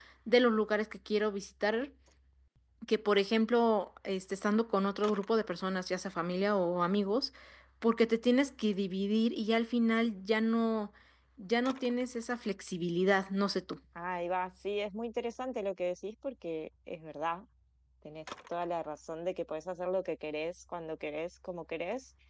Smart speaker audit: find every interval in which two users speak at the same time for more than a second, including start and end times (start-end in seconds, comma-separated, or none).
none